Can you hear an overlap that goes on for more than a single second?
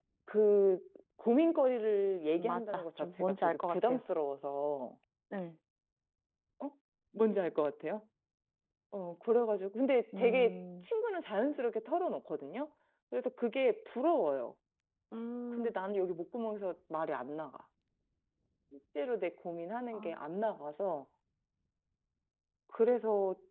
Yes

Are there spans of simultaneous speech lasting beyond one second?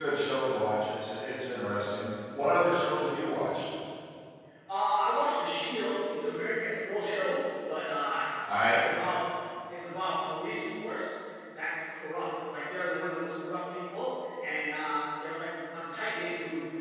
No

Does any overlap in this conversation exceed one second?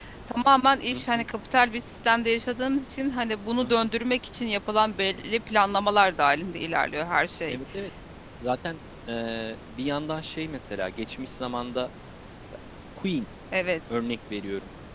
No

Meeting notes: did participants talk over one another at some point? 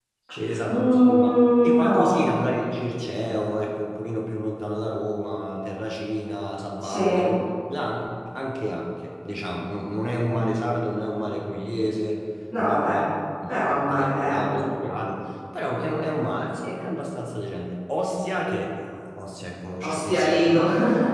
Yes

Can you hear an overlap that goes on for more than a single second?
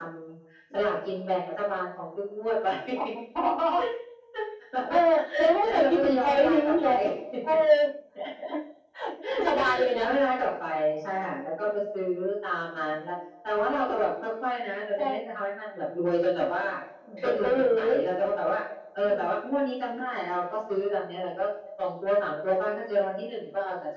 Yes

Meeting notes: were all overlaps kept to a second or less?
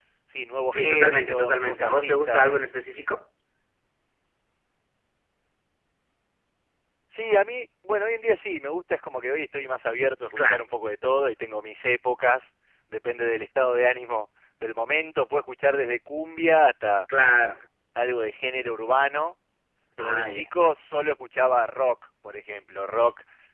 No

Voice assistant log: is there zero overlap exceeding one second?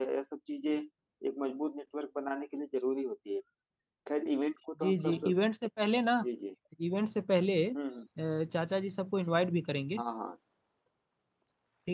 Yes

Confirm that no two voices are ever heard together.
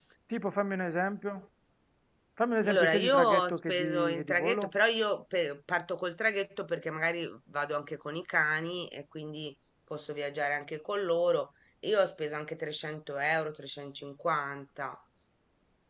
No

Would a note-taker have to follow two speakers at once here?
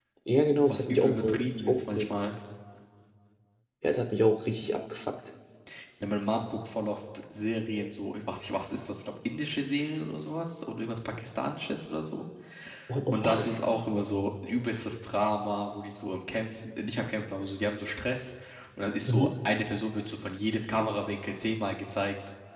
Yes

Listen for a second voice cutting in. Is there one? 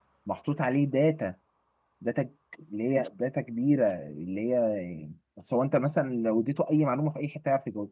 No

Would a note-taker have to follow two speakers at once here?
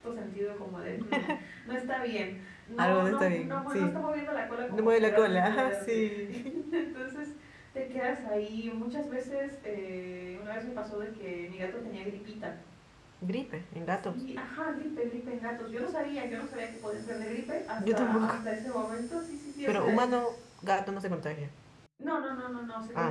Yes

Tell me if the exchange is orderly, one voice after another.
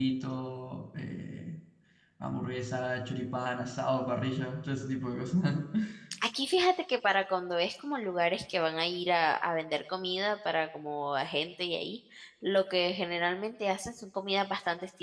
Yes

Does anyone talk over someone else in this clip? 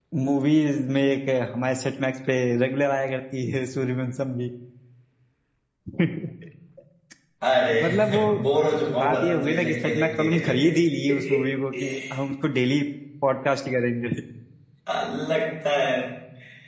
Yes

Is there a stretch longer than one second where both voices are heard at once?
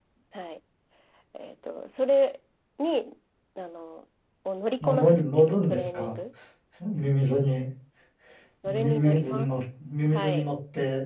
Yes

